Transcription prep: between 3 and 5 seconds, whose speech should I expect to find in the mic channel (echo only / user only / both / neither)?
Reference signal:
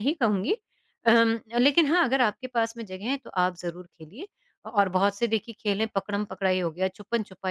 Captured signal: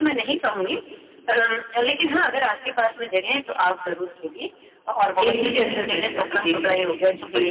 echo only